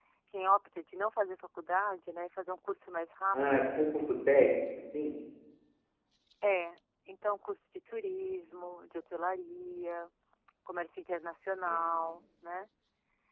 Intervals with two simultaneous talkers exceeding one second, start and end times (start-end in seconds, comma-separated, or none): none